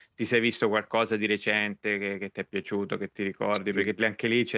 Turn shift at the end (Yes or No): No